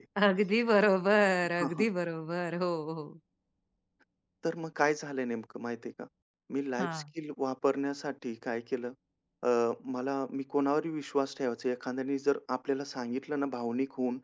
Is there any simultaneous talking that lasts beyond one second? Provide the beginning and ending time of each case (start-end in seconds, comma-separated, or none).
none